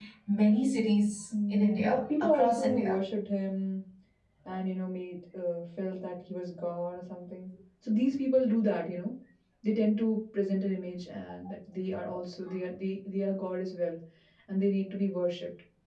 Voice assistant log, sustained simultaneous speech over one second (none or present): present